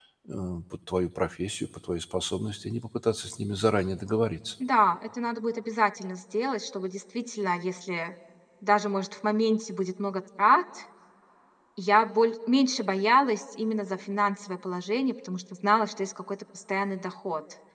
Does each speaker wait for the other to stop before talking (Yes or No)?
Yes